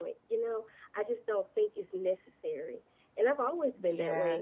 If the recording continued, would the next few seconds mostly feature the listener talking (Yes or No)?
No